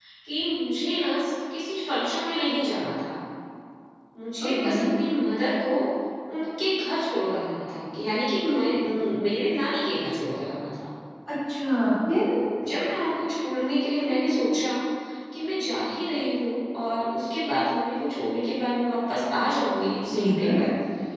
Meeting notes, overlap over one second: none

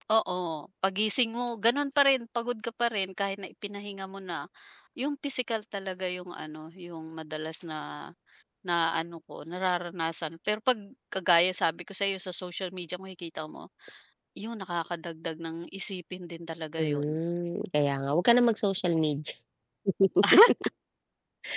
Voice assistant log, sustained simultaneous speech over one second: none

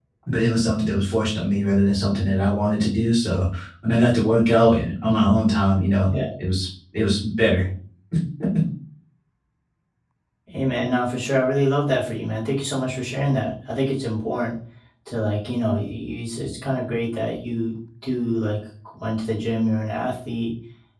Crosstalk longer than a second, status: none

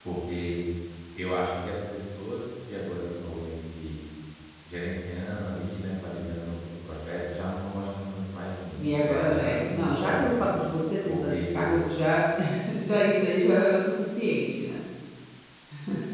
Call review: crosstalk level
present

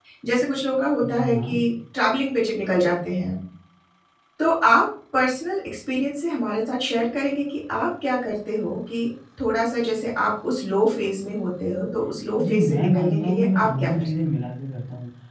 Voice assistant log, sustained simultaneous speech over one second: present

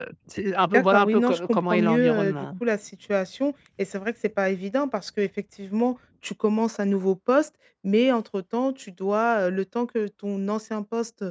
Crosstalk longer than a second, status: present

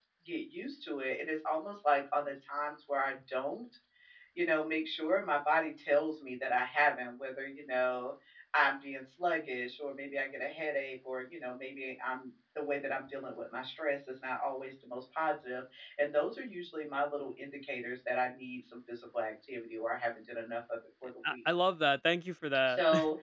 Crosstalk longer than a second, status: none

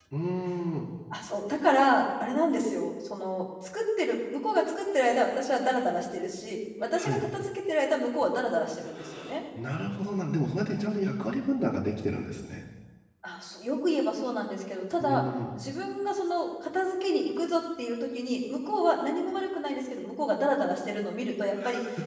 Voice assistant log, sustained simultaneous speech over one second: none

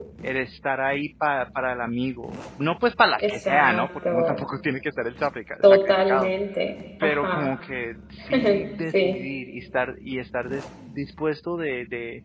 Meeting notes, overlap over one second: present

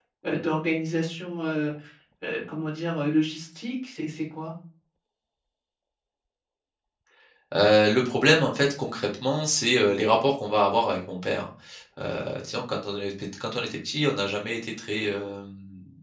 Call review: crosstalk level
none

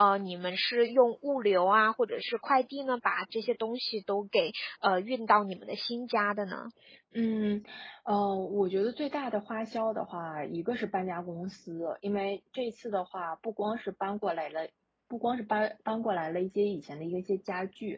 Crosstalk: none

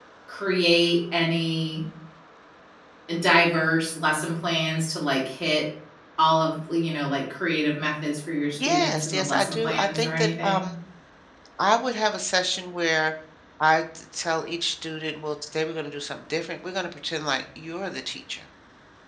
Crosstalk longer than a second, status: present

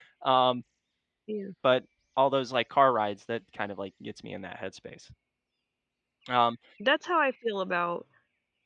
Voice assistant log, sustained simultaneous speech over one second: none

